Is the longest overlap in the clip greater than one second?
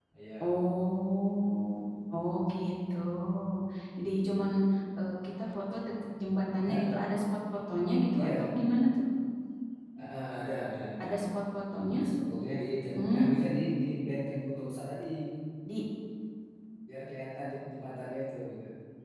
No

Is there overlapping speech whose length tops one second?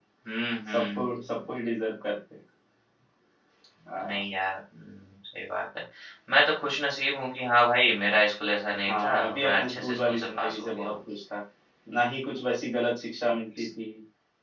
Yes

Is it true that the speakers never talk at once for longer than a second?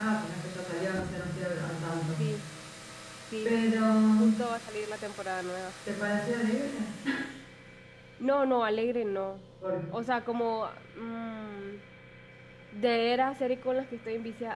Yes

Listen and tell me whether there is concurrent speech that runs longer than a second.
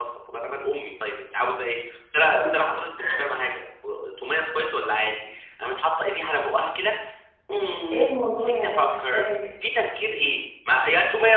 Yes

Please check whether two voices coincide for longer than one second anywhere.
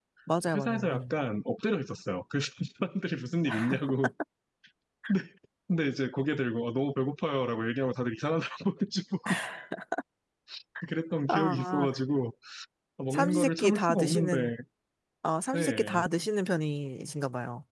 Yes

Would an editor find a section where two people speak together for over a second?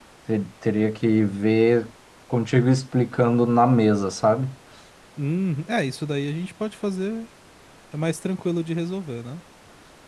No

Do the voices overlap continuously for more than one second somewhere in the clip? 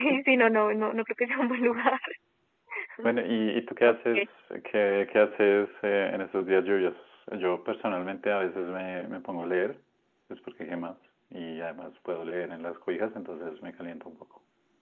No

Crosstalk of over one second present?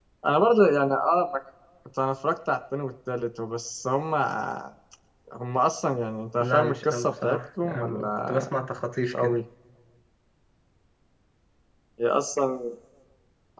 Yes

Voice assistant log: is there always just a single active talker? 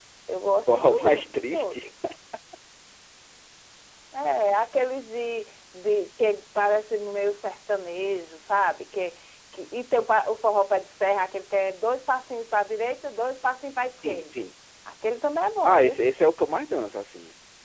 No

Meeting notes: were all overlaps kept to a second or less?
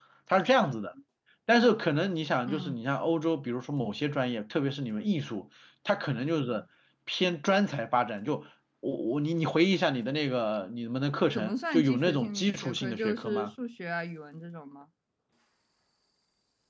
No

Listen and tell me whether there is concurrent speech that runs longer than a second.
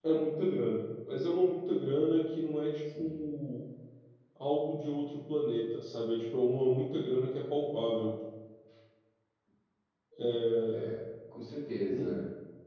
No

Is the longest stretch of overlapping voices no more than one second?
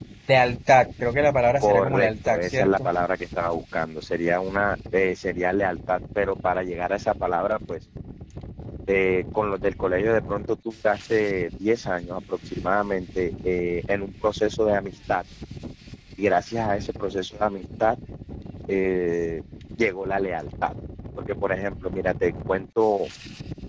No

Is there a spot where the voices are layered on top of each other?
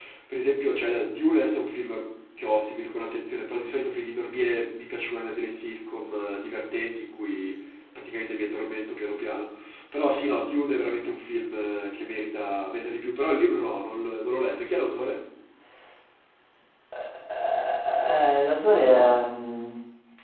No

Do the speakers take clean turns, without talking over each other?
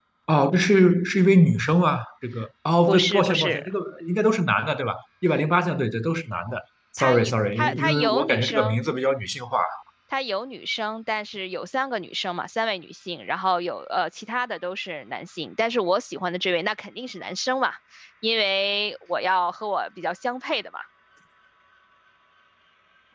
No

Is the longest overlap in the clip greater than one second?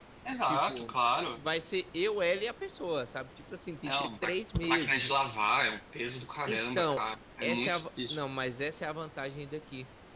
Yes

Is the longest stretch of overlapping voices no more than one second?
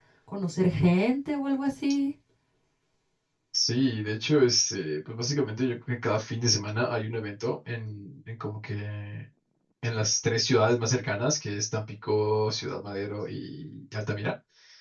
Yes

